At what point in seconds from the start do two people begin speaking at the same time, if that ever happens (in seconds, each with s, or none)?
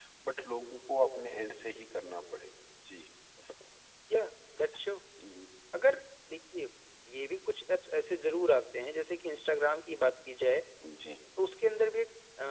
none